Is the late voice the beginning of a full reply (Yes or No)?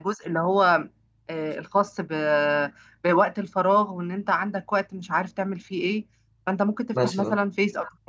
No